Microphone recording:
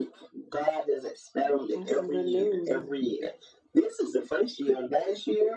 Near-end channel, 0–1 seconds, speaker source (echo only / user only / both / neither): echo only